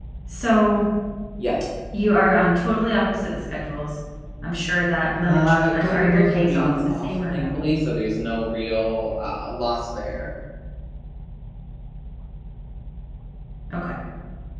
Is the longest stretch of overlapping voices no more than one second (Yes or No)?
No